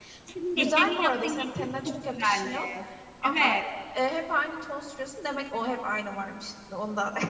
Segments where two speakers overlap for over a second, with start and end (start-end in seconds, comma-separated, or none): 0.6-2.6